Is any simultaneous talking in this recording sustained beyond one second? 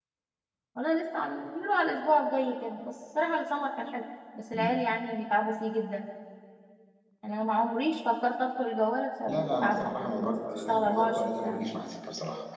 Yes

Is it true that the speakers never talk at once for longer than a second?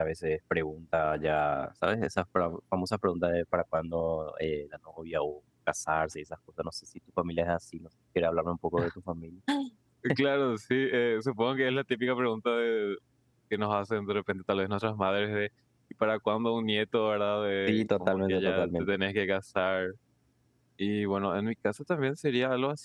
No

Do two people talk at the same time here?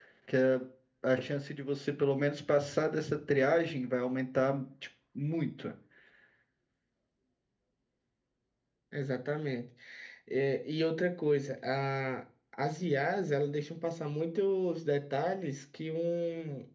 No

